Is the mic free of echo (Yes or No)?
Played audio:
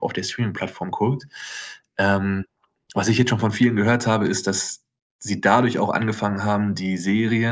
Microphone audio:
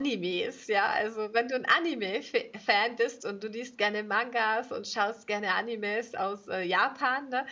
Yes